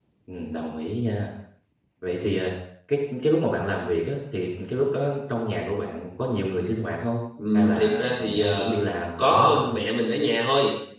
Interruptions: present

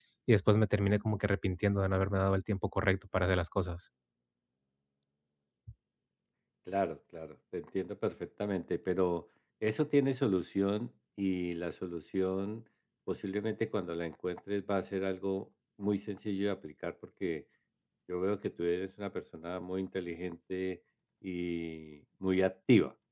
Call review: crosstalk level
none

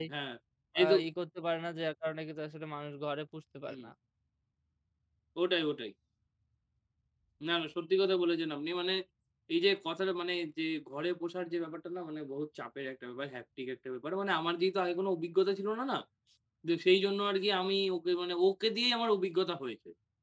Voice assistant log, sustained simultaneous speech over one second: none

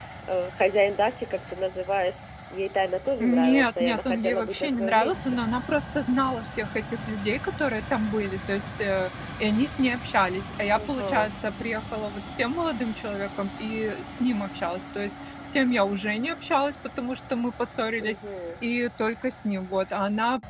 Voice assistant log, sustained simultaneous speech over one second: present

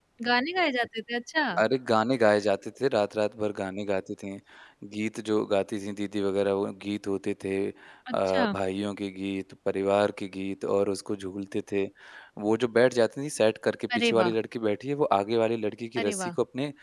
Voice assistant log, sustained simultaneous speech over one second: none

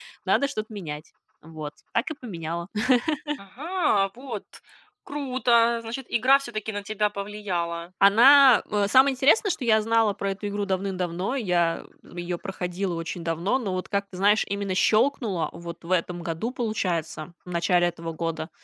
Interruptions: none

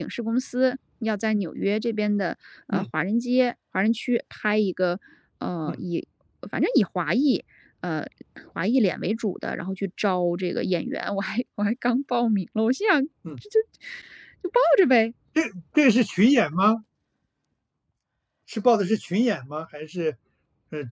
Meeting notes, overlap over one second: none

